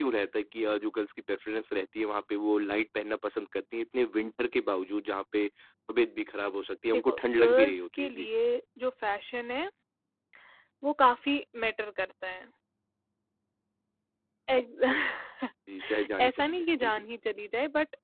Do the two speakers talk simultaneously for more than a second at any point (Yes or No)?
Yes